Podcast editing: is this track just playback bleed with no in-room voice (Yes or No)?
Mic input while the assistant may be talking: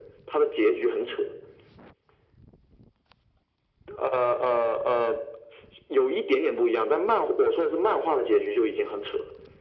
Yes